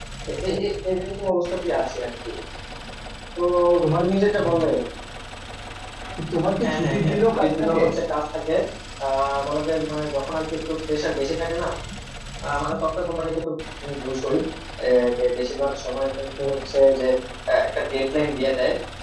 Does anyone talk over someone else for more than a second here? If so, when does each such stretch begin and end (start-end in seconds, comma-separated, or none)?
6.6-7.8